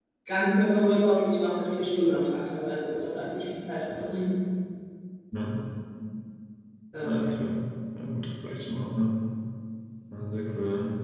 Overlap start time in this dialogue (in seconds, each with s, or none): none